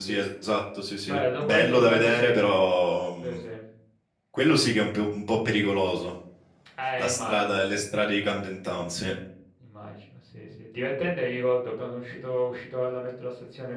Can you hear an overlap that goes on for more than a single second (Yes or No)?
Yes